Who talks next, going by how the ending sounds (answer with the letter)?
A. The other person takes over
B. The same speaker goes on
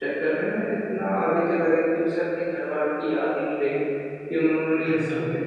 B